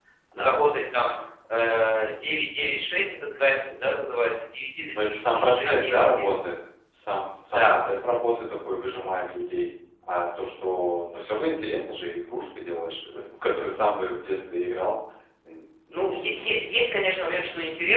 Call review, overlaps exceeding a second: present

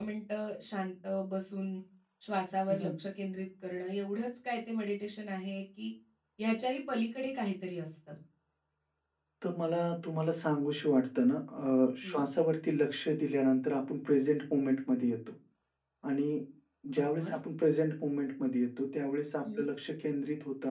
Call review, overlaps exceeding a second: none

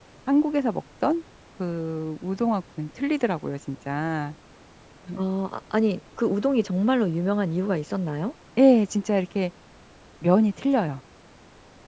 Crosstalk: none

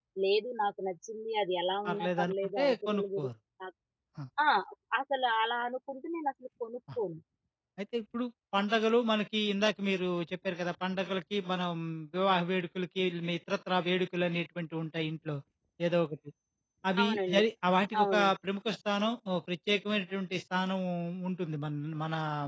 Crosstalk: present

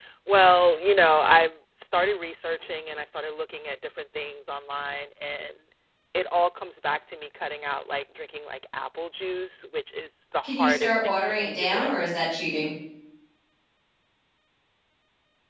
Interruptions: present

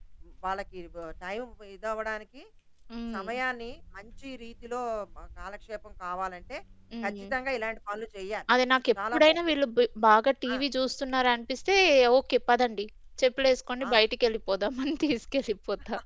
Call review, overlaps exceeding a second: none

